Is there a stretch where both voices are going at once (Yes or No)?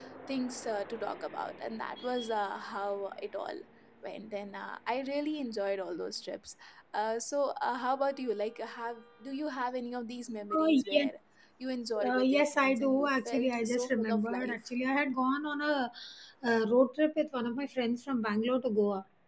Yes